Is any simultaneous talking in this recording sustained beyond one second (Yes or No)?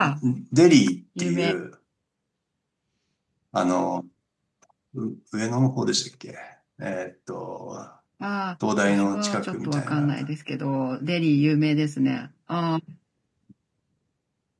Yes